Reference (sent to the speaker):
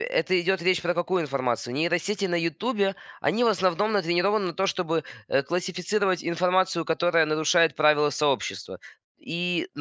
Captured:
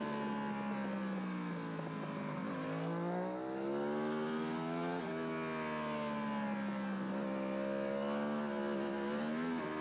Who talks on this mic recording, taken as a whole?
neither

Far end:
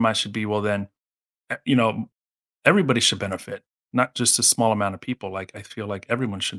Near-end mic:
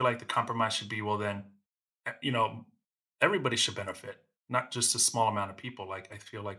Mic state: echo only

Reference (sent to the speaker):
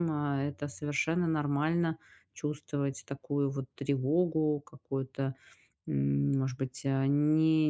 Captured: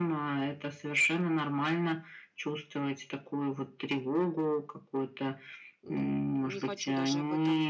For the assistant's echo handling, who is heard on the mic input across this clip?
both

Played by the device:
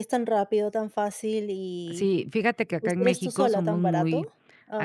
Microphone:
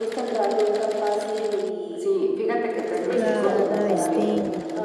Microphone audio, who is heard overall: both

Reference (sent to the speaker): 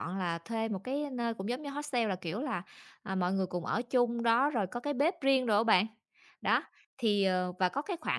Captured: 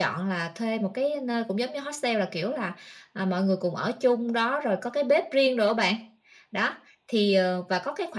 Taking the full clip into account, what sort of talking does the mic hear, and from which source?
echo only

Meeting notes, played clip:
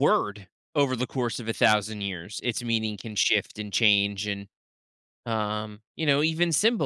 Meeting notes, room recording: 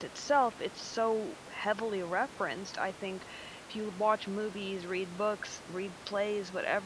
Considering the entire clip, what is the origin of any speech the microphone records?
user only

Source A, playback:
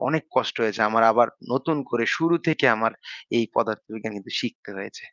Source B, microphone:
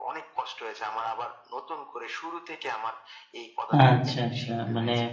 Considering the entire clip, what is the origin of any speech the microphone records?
both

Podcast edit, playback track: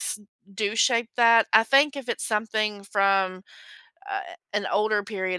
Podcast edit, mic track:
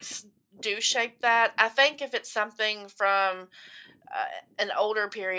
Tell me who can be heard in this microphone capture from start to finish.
echo only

